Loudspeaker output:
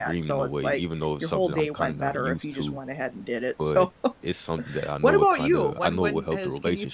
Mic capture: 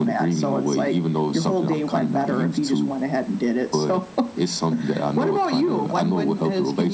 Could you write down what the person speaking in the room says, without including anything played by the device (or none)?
none